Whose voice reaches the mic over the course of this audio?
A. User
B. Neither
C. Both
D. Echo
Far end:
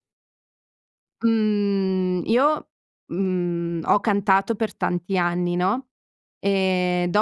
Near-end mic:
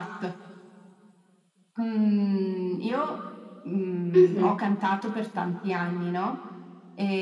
C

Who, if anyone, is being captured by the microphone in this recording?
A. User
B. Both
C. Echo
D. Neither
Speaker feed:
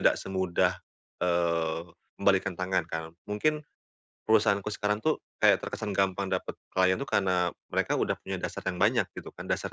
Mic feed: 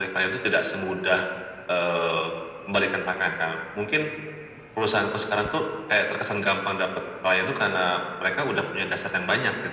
C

